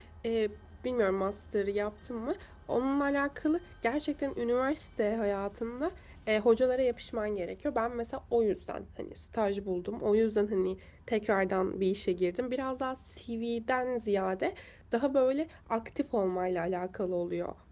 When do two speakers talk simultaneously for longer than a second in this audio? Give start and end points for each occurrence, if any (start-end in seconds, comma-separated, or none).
none